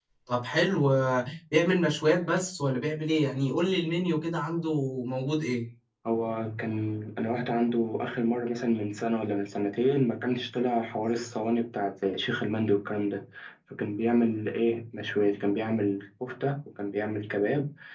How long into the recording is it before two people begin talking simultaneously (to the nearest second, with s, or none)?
none